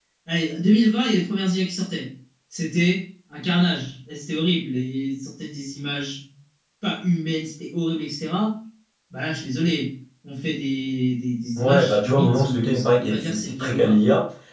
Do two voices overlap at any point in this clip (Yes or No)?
Yes